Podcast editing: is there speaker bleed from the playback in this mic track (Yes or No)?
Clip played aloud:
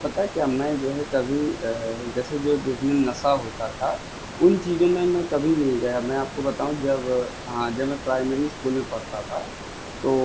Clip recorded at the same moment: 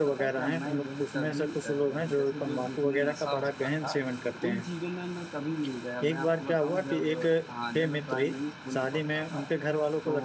Yes